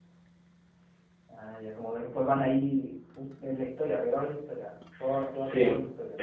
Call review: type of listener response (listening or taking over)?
taking over